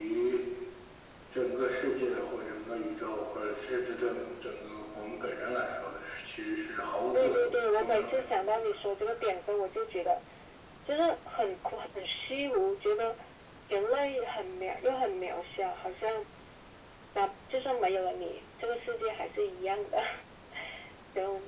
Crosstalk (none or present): present